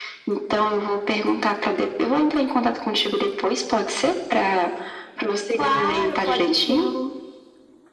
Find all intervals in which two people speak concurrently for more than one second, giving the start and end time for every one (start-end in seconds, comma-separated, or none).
5.6-6.9